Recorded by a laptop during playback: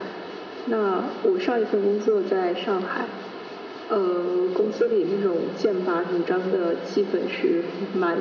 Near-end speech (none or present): none